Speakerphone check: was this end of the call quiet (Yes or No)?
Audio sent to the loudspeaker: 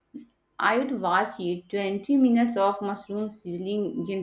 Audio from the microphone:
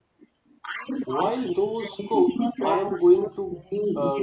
No